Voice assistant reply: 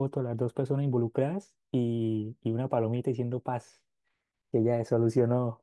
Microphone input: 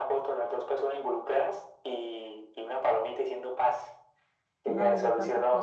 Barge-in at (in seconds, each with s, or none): 4.7 s